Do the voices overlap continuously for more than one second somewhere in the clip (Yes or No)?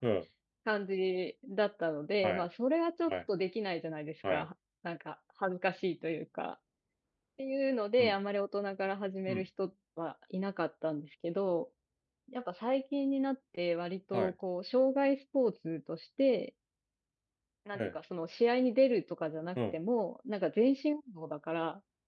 No